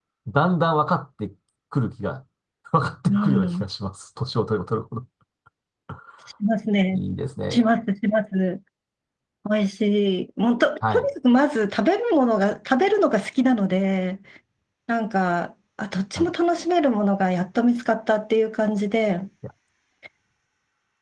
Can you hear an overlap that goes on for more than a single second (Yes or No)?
No